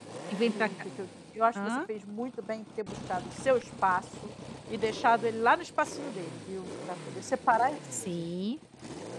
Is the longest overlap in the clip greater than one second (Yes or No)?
No